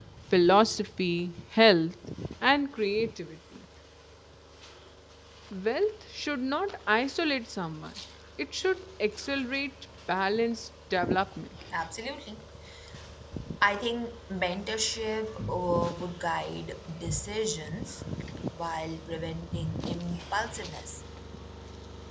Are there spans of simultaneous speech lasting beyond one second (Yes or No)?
No